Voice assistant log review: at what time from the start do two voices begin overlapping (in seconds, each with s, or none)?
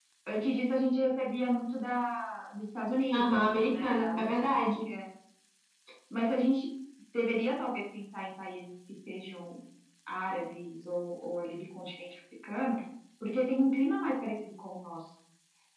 3.1 s